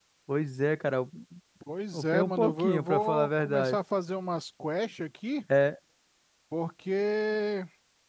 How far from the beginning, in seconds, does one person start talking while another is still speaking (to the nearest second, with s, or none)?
2 s